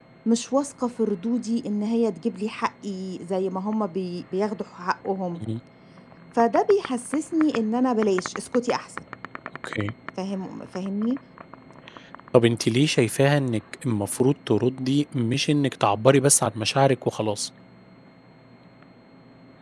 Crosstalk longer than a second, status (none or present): none